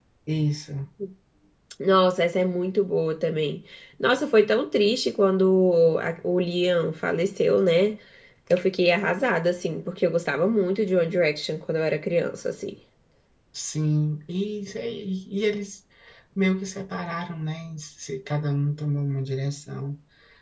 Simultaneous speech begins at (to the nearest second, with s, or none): none